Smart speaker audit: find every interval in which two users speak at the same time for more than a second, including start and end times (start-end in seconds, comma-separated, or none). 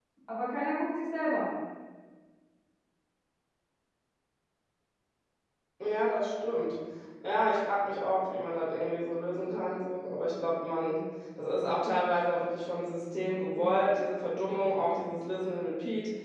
none